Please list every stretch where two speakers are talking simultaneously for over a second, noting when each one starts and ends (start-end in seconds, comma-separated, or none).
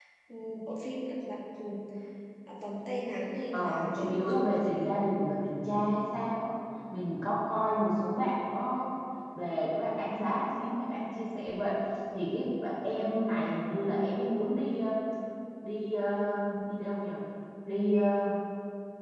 3.5-4.9